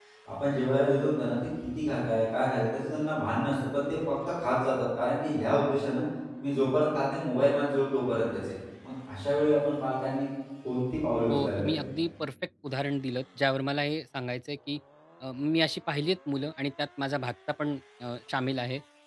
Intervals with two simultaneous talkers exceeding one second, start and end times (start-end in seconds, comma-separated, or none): none